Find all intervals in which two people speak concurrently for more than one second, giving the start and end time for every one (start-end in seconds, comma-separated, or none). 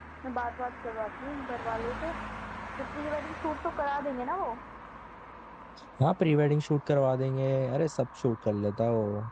none